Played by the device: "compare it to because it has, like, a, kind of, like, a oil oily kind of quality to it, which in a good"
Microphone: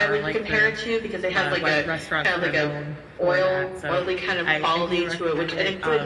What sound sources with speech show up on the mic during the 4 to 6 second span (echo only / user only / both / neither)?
both